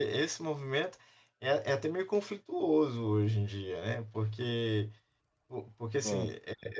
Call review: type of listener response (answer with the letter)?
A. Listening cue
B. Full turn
A